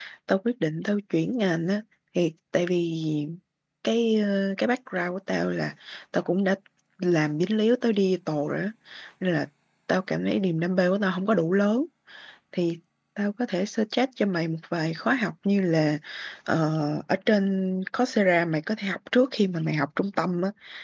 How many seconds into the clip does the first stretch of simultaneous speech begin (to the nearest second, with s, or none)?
none